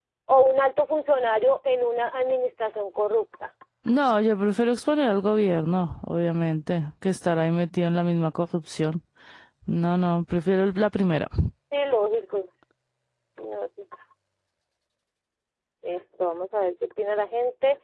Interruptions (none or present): none